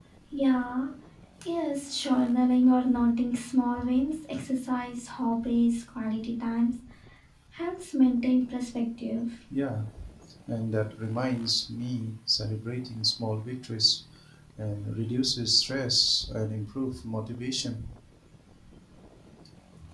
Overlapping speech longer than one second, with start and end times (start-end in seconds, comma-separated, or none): none